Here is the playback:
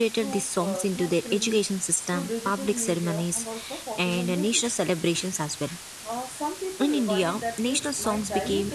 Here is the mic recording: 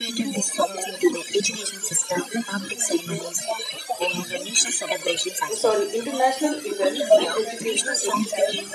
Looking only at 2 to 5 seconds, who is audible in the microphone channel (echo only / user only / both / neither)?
echo only